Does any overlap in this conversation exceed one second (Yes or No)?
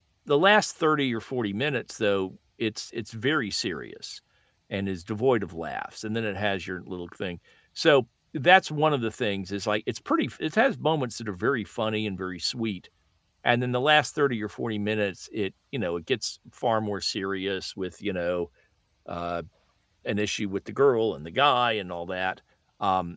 No